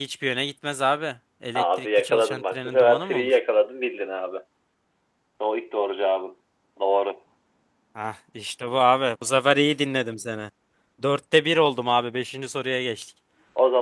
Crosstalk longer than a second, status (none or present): present